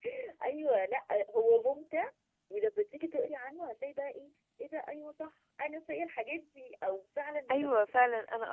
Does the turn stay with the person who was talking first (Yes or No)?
No